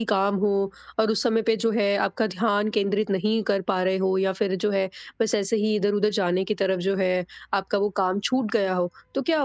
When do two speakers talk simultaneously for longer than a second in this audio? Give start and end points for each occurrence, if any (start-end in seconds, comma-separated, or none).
none